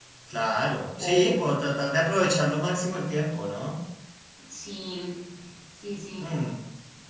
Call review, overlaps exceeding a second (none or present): none